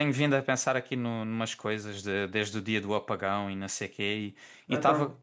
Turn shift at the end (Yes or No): No